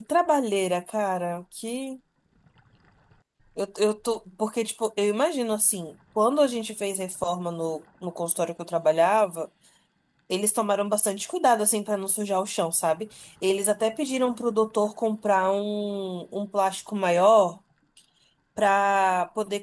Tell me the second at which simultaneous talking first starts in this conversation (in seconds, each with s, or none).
none